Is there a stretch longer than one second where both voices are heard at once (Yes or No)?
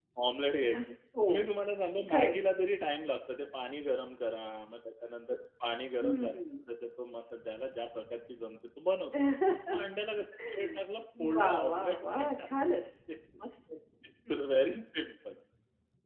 Yes